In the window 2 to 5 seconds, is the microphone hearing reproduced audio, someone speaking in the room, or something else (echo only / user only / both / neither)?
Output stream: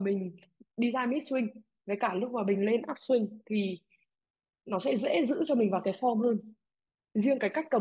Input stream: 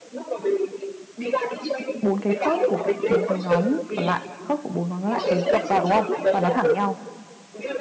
both